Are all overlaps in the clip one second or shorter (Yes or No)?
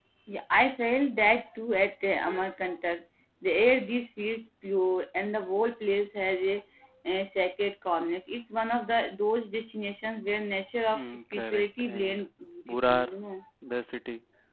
No